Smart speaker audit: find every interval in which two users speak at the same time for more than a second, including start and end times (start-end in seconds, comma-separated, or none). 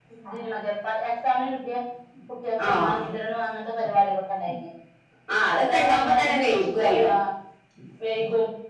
5.6-7.1